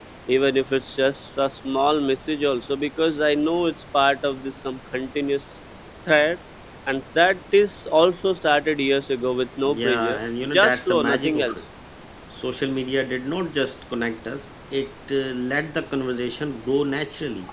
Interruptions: present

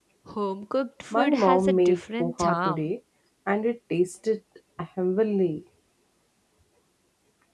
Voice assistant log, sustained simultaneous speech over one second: present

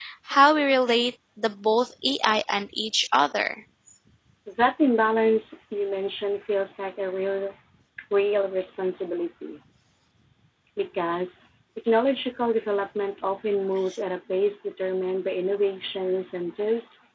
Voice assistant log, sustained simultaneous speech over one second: none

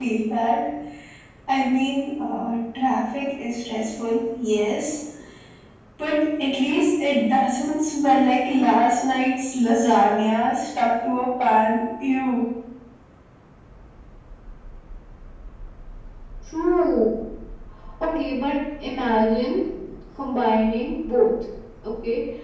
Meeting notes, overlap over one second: none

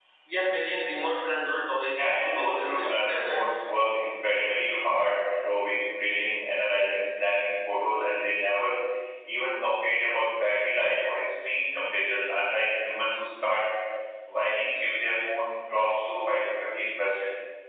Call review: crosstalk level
present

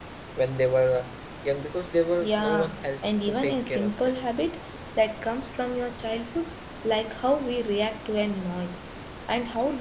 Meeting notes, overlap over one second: present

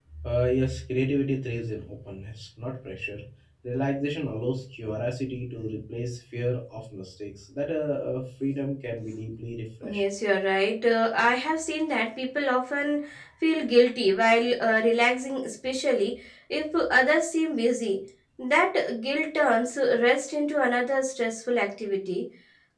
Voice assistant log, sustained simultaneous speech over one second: none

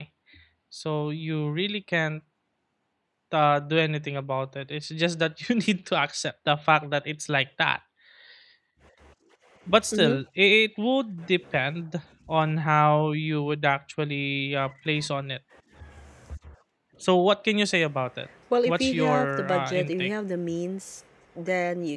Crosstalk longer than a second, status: present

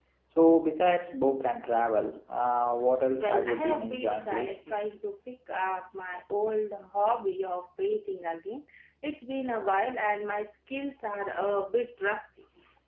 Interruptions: present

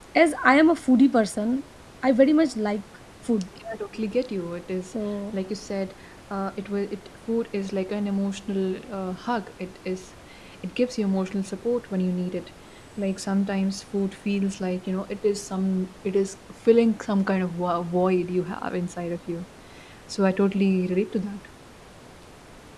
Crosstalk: none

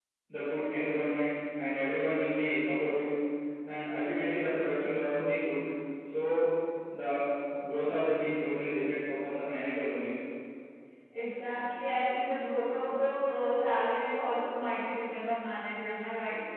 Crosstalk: none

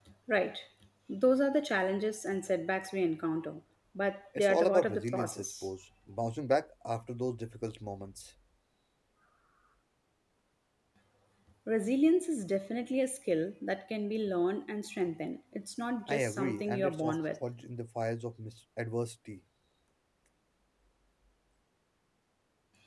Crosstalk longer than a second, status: present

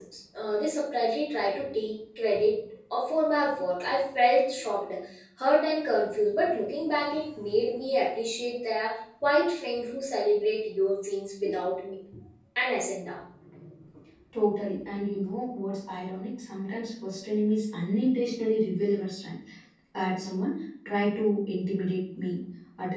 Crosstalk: none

